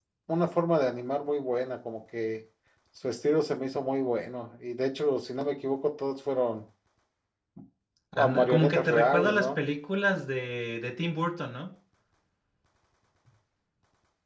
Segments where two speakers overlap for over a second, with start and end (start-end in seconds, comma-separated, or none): 8.2-9.6